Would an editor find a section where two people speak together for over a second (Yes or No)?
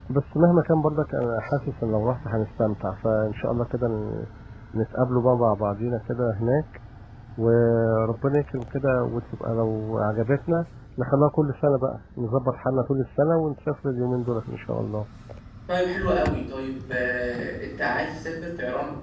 No